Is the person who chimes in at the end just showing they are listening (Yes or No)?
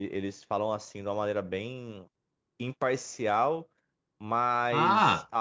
Yes